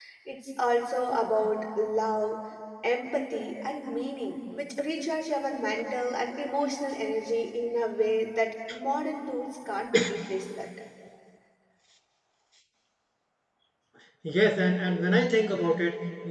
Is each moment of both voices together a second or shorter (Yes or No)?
Yes